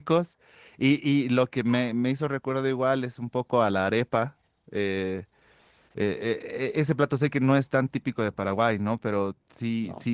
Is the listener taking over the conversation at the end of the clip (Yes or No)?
No